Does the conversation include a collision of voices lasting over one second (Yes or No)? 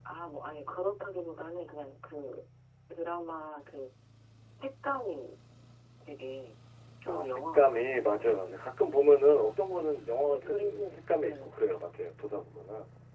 Yes